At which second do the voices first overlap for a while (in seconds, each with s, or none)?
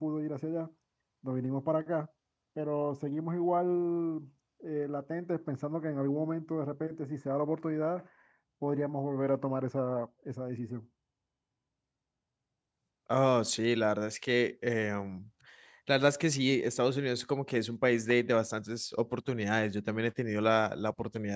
none